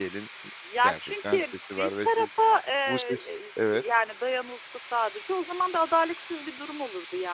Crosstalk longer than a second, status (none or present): present